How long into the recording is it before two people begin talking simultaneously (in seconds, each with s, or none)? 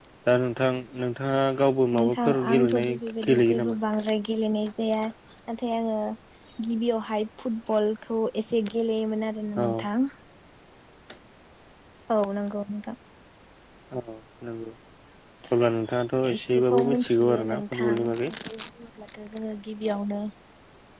2.0 s